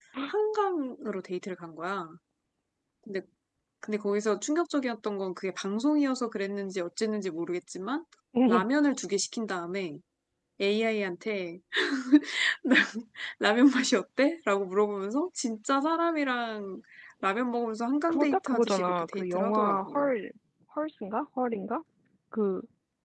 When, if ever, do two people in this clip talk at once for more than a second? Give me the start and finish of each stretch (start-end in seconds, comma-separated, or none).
18.1-20.1